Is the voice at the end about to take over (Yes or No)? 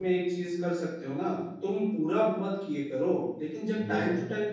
No